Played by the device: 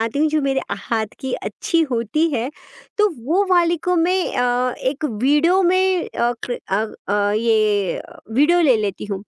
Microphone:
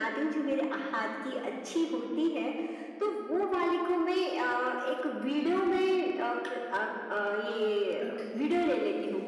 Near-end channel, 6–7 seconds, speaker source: echo only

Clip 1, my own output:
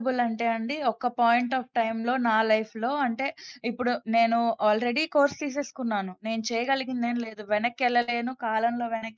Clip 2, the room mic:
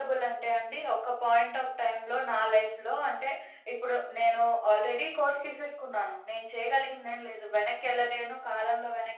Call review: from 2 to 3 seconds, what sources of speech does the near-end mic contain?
echo only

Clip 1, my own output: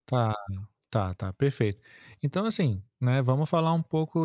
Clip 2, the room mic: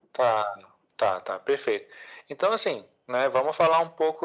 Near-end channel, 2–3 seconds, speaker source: echo only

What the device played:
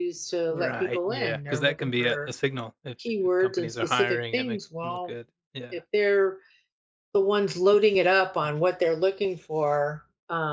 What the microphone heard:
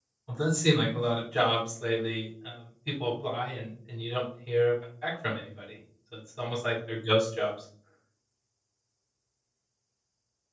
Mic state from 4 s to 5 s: user only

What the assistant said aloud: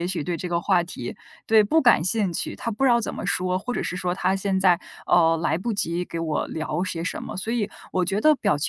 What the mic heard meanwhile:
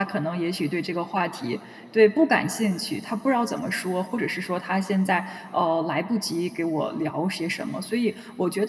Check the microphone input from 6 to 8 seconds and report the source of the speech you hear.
echo only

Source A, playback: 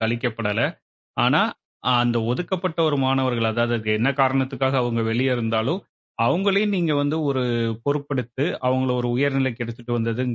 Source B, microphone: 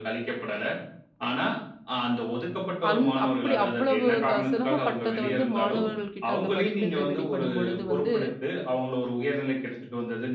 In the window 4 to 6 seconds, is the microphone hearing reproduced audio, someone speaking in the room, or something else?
both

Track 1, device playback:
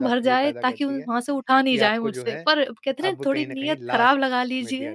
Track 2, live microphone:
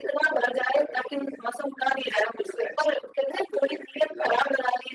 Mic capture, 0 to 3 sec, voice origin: echo only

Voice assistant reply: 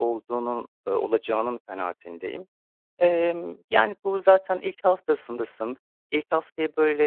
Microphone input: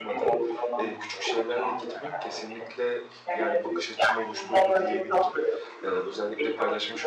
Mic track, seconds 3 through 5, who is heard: both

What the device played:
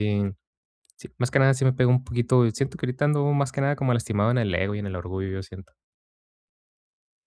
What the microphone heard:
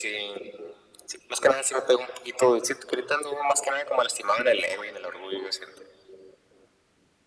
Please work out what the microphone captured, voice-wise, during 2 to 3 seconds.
echo only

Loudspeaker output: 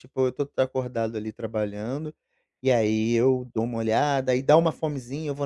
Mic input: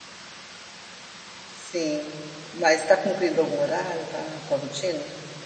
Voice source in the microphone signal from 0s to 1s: neither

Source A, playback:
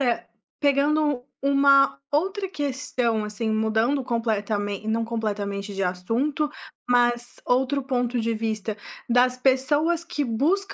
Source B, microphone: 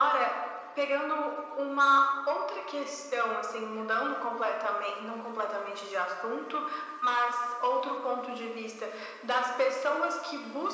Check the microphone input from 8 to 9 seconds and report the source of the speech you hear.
echo only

